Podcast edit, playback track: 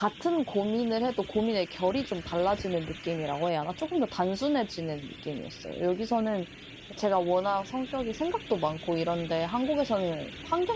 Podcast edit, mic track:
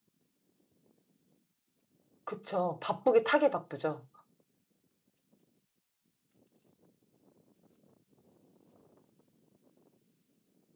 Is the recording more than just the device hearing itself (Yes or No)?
Yes